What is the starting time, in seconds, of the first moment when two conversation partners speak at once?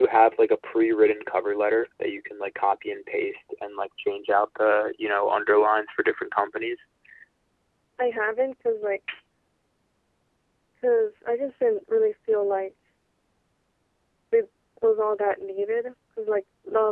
none

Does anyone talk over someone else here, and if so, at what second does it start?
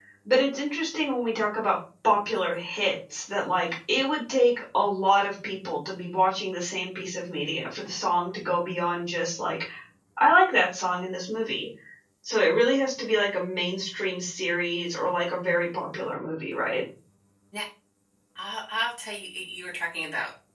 none

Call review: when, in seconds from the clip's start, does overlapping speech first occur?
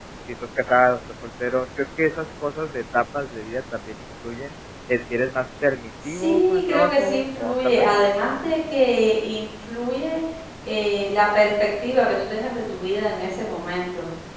6.0 s

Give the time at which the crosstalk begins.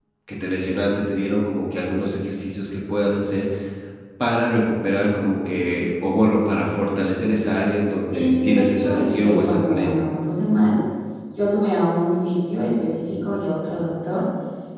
8.1 s

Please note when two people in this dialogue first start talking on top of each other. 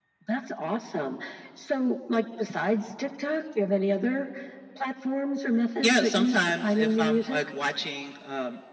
5.8 s

